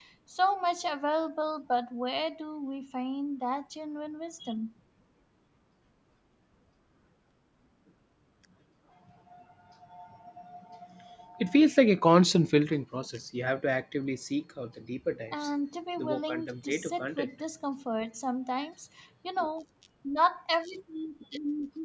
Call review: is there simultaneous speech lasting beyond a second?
Yes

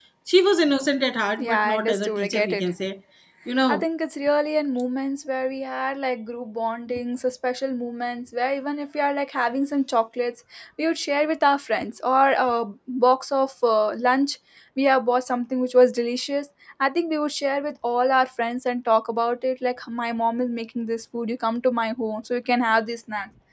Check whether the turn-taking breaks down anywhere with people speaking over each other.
Yes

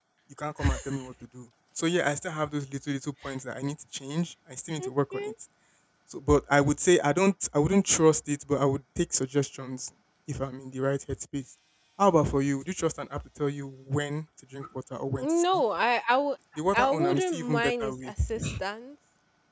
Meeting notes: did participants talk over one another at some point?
Yes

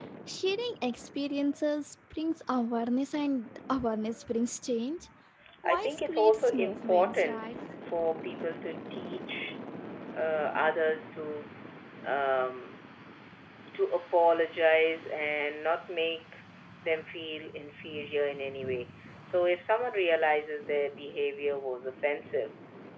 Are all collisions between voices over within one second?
No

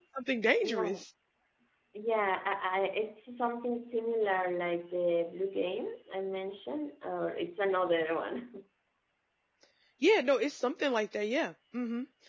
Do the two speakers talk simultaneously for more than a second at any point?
No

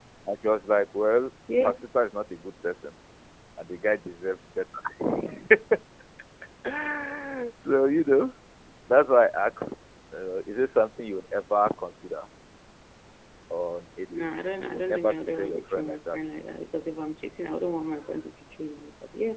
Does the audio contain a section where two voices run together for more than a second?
Yes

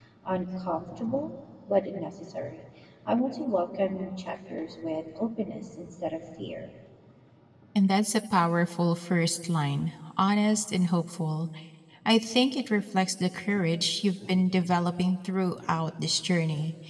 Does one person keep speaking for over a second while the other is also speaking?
No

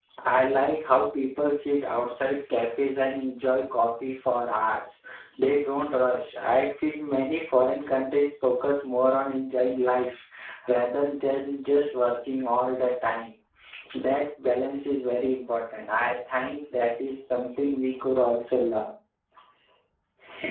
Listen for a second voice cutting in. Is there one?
No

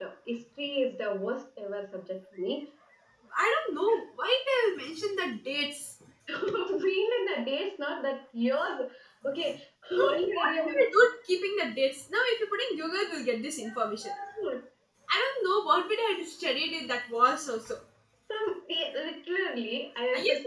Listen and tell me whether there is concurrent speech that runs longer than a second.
No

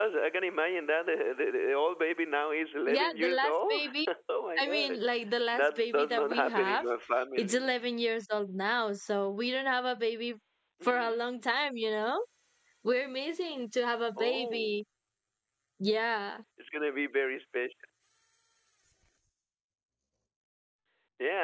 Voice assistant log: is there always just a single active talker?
No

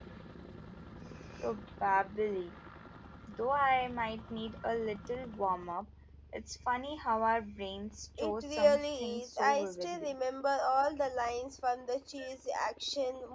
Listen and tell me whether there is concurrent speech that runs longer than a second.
Yes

